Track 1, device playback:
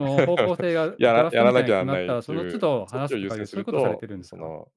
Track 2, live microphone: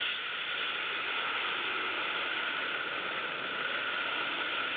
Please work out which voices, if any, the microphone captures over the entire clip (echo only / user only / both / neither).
neither